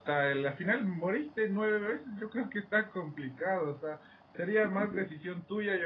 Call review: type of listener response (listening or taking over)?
listening